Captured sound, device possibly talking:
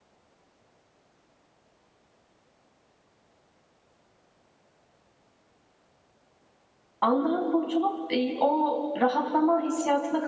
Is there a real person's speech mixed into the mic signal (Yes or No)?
Yes